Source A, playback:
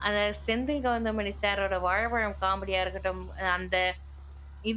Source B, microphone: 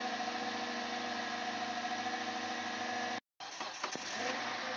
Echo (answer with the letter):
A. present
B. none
B